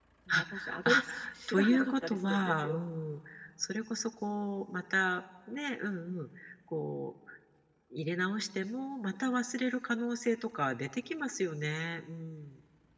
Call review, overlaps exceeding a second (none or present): present